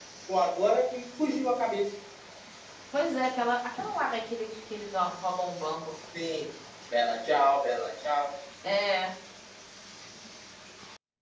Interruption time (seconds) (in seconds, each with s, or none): none